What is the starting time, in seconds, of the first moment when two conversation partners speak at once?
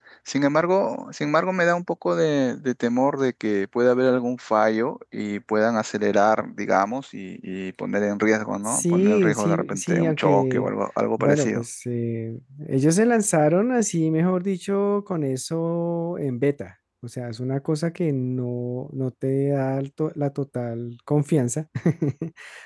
8.6 s

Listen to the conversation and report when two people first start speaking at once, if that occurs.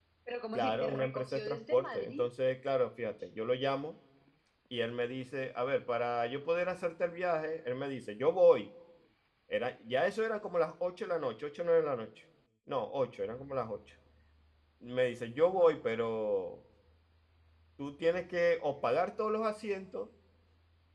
0.5 s

